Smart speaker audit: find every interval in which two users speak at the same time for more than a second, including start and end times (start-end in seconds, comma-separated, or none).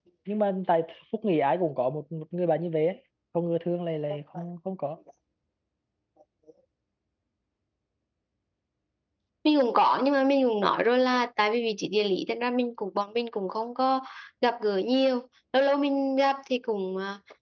none